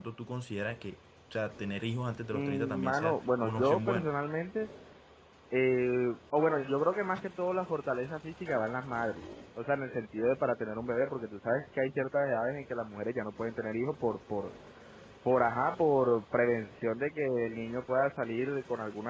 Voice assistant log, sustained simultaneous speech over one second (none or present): present